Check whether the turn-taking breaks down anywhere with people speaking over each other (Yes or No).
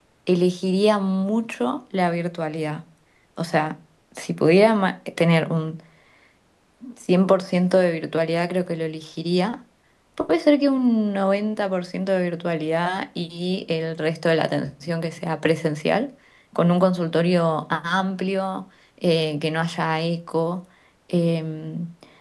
No